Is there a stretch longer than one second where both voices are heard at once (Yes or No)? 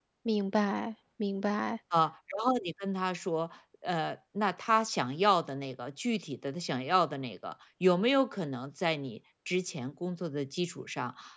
No